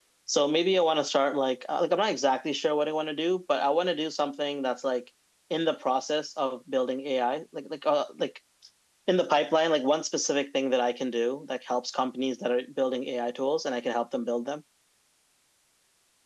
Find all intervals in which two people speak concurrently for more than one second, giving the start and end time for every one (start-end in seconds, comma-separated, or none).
none